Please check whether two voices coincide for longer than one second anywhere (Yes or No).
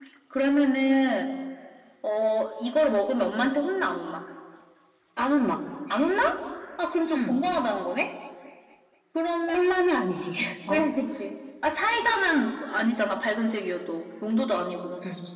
No